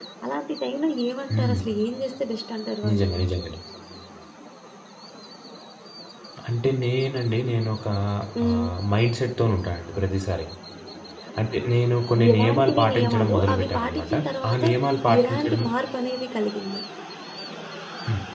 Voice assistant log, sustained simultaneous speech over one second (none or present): present